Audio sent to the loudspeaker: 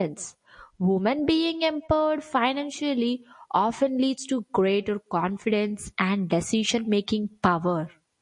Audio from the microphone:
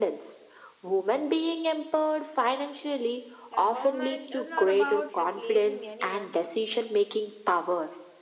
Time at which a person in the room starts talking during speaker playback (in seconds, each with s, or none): 3.5 s